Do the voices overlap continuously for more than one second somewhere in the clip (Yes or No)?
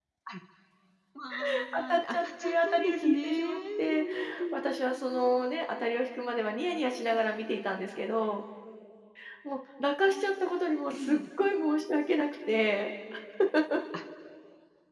Yes